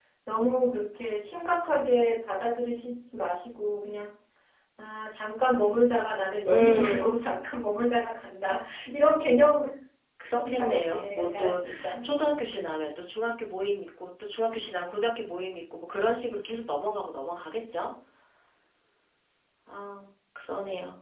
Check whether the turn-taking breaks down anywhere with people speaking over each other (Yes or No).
Yes